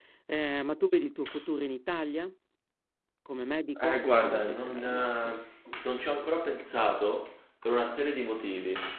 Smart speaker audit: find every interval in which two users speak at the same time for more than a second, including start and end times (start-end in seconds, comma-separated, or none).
3.8-5.4